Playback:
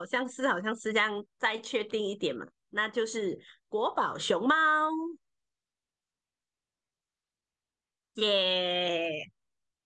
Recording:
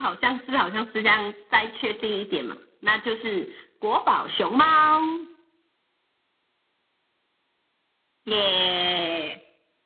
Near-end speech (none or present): none